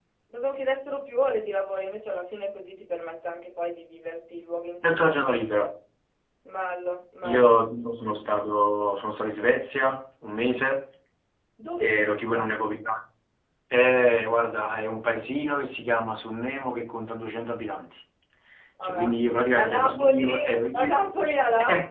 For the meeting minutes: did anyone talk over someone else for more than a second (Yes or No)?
Yes